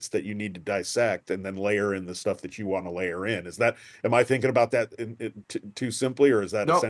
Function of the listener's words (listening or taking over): taking over